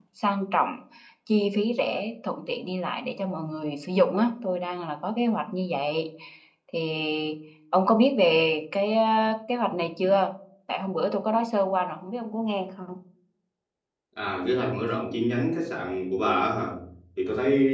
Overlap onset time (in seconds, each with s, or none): none